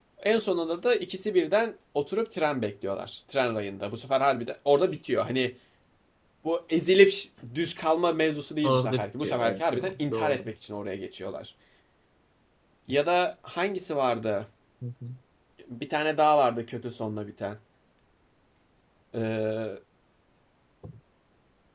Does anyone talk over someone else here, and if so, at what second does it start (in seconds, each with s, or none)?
8.6 s